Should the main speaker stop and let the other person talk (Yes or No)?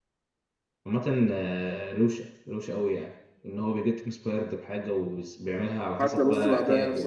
Yes